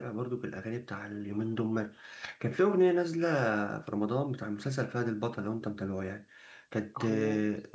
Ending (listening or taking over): listening